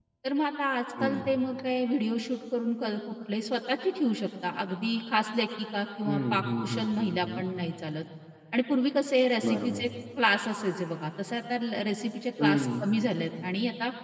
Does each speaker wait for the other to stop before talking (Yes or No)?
No